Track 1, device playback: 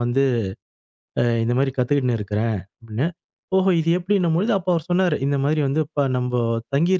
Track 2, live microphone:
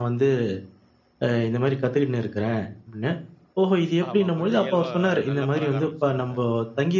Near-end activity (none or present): present